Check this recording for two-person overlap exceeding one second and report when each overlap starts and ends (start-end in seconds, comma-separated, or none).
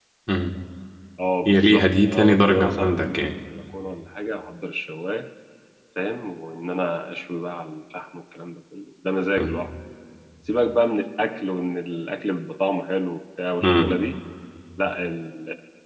1.5-3.2